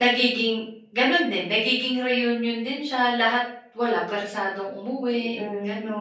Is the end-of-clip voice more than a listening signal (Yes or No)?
Yes